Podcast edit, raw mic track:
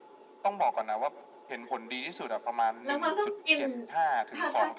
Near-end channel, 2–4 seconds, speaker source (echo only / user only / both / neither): both